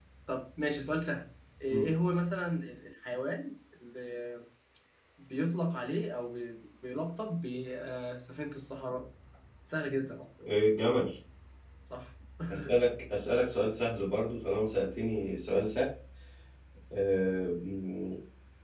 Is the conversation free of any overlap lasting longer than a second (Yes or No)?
Yes